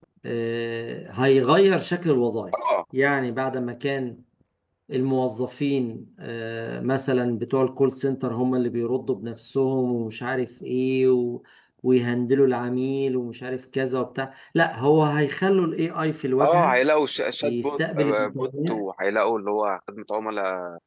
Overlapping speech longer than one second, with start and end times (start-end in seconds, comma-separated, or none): 17.4-18.8